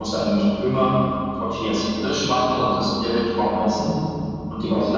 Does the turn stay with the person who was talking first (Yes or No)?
Yes